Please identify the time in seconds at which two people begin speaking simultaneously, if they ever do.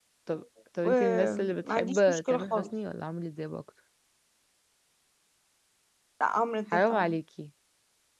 0.8 s

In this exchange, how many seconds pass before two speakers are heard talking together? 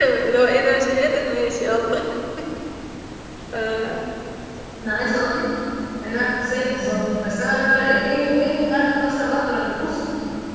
none

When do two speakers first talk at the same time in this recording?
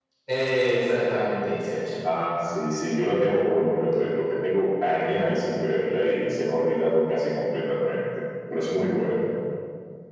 none

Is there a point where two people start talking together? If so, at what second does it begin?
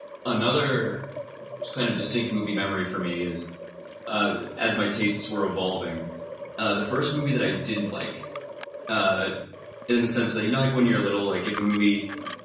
none

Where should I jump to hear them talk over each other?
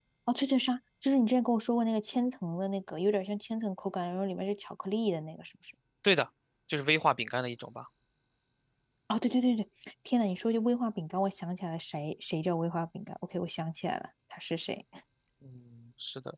none

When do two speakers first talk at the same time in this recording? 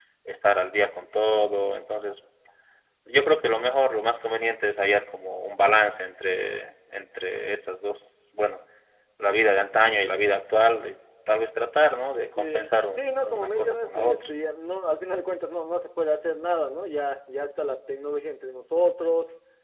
12.4 s

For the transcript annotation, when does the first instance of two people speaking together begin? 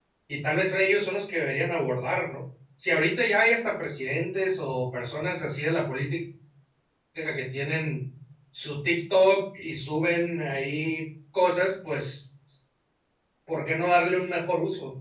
none

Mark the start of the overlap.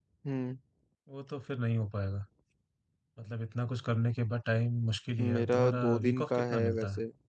5.2 s

